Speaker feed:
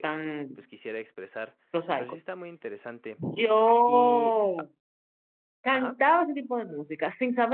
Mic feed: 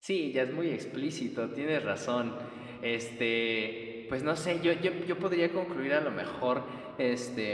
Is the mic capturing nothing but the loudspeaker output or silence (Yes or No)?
No